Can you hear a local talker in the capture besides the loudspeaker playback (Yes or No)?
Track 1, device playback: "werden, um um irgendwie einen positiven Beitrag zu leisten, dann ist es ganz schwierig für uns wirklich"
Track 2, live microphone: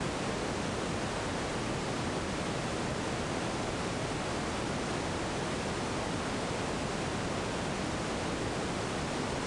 No